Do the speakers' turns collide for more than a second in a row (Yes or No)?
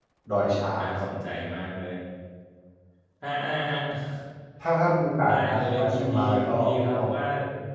Yes